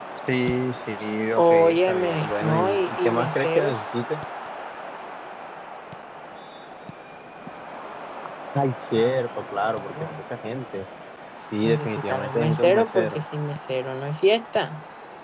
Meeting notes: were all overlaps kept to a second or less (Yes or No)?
No